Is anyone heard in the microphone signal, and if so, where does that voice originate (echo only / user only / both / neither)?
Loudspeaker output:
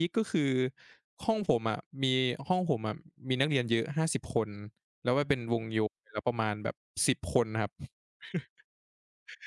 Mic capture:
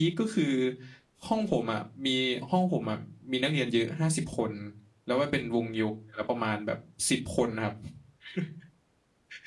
echo only